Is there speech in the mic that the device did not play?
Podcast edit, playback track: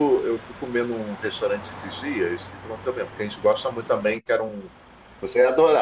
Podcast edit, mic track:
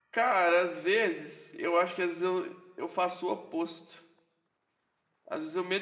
Yes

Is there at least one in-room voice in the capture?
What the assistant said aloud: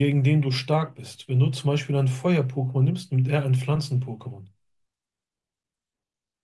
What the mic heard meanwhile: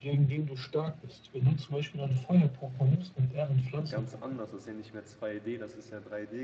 Yes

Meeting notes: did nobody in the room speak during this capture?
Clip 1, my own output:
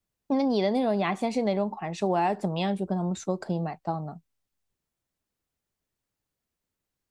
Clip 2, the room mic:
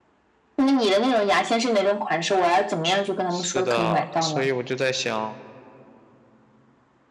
No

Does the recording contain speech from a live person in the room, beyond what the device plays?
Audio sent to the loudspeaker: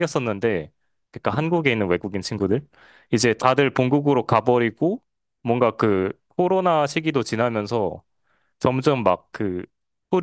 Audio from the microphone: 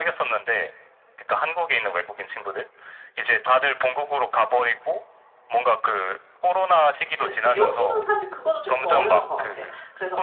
Yes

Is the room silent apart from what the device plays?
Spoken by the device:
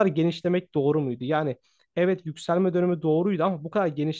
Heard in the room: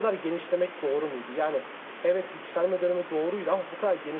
Yes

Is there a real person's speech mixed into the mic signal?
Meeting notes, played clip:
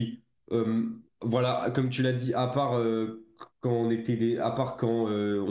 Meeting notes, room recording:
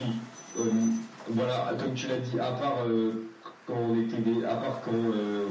No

